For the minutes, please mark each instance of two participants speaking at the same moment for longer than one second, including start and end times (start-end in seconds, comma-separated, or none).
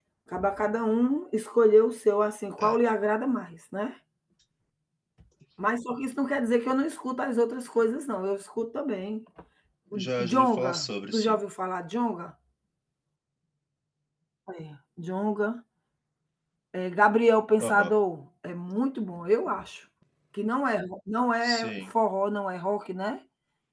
9.9-11.4